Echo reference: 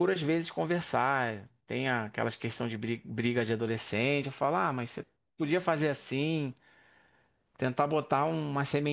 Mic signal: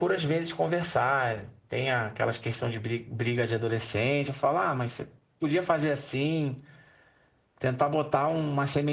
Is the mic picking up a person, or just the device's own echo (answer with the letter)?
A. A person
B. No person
B